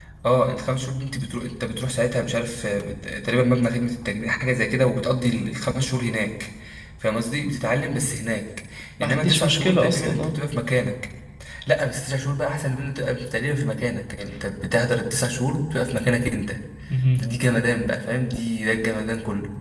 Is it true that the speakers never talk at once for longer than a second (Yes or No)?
No